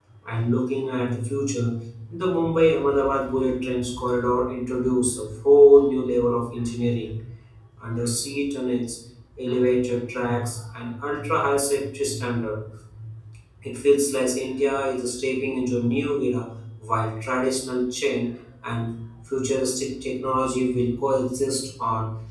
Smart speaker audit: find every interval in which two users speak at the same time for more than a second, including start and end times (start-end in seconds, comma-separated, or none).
none